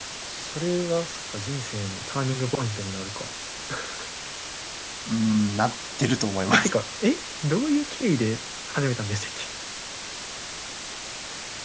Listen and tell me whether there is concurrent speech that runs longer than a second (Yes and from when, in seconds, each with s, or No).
No